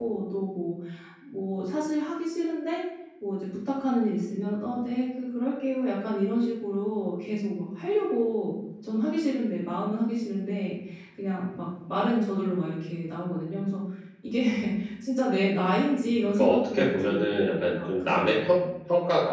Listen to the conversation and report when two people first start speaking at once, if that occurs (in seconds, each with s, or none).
16.1 s